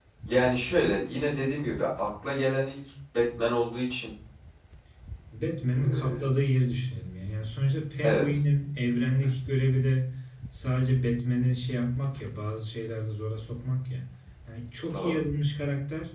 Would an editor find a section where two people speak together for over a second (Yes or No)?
No